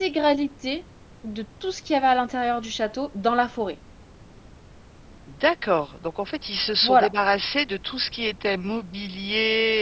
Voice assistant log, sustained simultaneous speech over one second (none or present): none